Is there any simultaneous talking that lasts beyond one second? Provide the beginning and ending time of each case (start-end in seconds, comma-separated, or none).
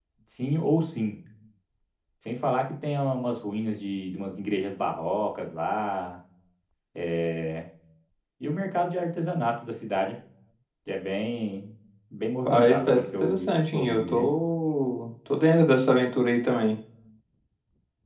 12.4-14.3